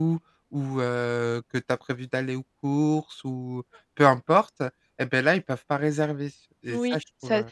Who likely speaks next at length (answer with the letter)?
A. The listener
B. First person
A